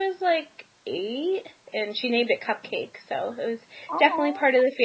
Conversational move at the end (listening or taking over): listening